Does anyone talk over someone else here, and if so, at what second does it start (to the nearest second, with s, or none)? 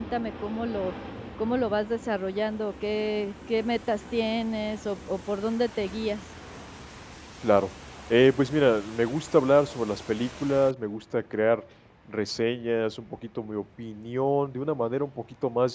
none